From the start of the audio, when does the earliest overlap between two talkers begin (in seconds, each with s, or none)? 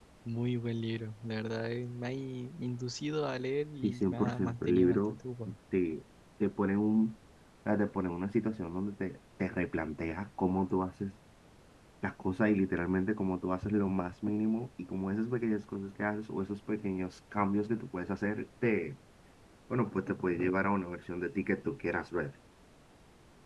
3.8 s